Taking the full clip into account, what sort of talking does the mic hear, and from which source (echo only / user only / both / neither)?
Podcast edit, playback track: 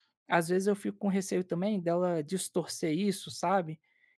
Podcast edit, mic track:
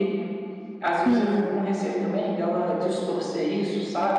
both